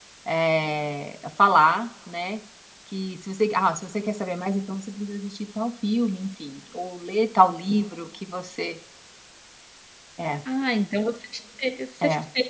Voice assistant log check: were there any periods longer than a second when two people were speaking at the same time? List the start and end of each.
none

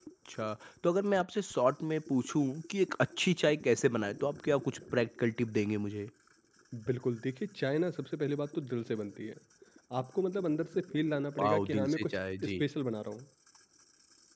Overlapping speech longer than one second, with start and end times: 11.4-12.6

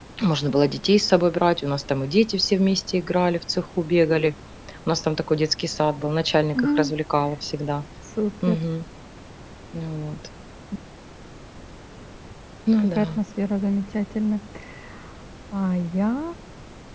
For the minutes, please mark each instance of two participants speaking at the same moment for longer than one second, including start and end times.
none

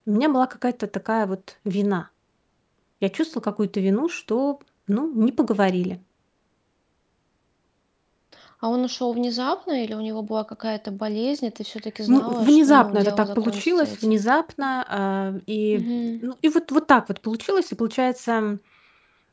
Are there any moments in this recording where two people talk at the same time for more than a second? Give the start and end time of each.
12.1-14.2

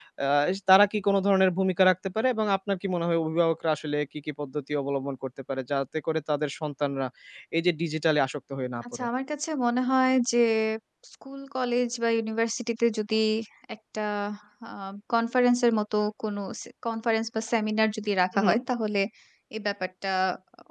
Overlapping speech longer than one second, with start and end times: none

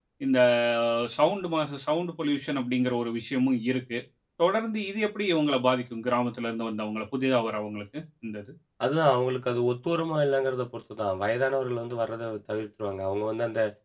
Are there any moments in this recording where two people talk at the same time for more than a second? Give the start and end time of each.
none

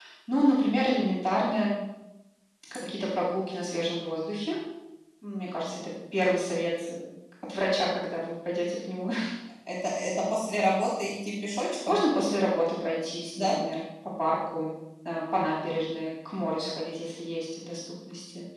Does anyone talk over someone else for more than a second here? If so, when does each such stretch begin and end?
none

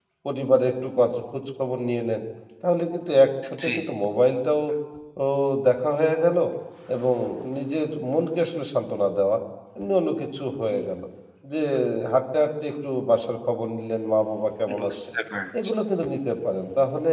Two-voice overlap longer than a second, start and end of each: none

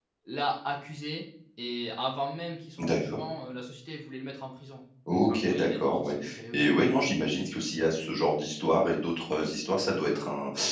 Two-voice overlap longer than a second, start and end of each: 5.1-6.7

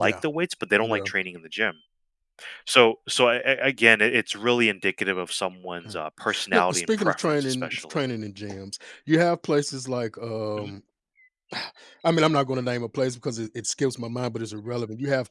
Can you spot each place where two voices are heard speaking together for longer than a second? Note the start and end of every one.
6.5-8.0

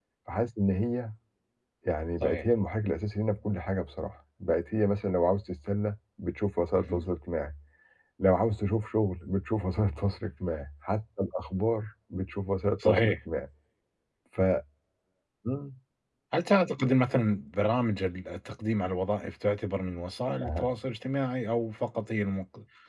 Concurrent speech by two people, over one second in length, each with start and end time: none

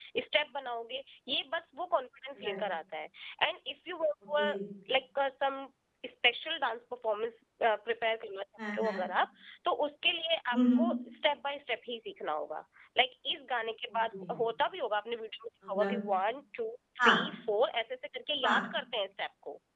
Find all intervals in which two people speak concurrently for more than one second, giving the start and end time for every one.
none

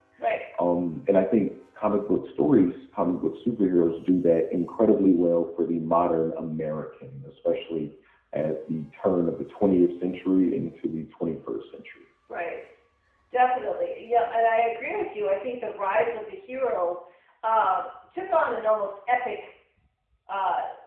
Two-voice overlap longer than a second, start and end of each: none

